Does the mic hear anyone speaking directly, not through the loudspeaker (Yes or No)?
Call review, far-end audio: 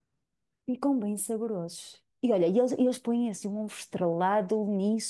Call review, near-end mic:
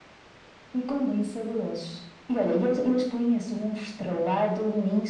No